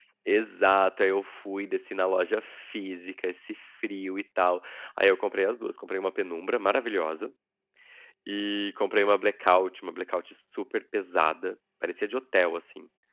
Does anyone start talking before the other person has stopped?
No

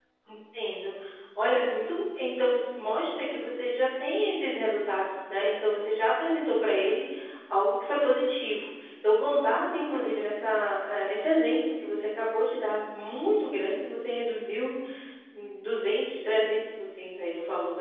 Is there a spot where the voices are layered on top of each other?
No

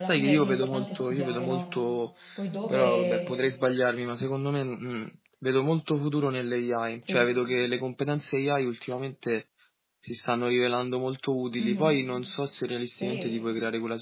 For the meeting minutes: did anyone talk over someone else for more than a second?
Yes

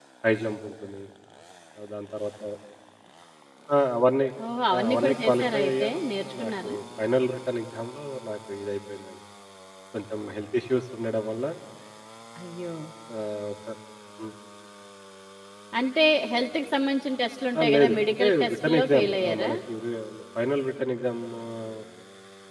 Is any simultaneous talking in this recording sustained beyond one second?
Yes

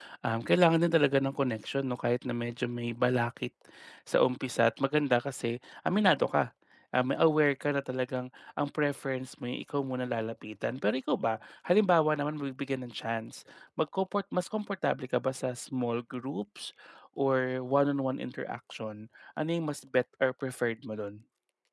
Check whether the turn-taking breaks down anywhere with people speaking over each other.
No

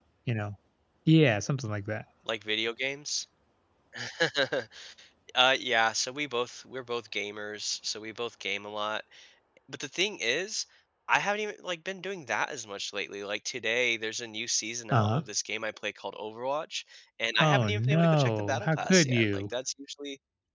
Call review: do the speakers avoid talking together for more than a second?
No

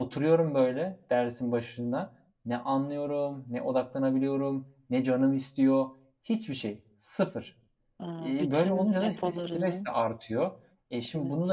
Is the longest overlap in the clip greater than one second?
Yes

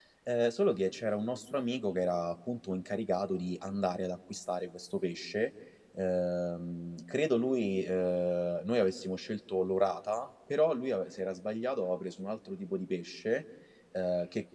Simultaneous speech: No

